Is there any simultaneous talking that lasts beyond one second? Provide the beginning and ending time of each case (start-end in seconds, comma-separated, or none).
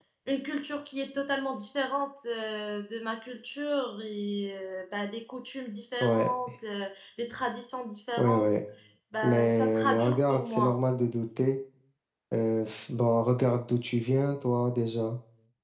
9.2-10.7